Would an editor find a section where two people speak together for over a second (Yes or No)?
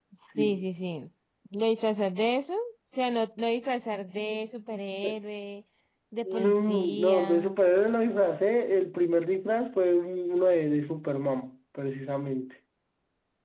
Yes